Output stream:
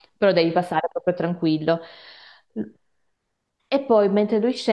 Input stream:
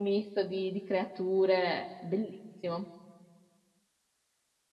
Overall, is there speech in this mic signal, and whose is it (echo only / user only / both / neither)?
user only